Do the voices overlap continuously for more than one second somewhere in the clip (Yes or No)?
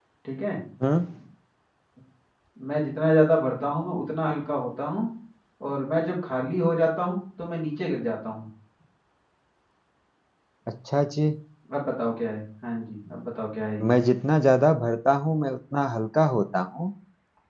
No